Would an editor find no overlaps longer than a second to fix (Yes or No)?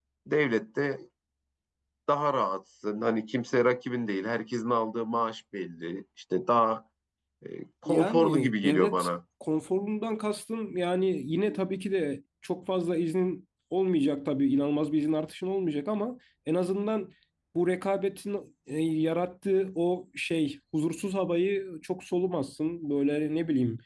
No